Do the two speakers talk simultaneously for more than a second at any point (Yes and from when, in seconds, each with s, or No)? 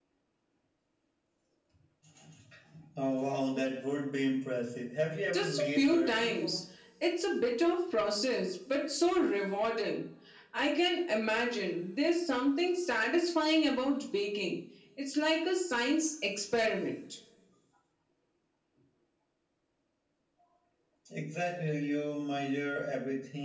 Yes, from 5.3 s